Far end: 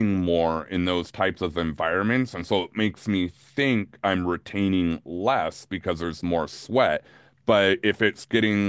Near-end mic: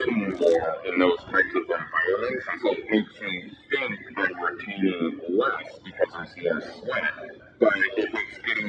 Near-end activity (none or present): none